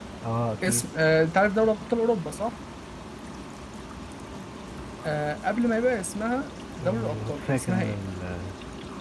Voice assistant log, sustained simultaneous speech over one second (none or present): present